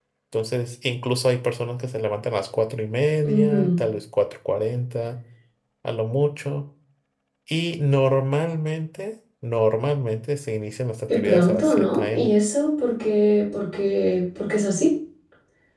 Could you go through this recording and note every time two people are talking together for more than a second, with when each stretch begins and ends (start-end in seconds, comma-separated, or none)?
11.1-12.3